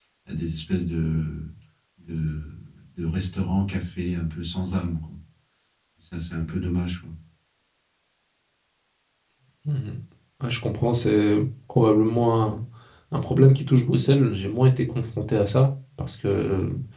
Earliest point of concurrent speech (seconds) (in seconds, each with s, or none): none